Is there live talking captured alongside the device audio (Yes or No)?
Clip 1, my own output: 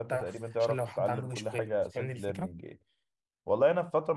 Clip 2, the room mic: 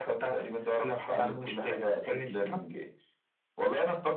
No